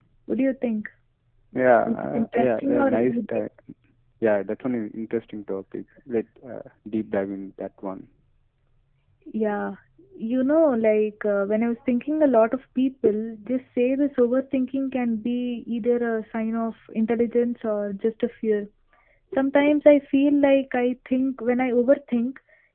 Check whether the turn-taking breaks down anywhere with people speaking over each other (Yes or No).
Yes